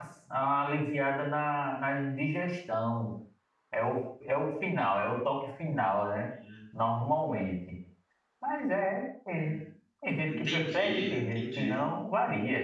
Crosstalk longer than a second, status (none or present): present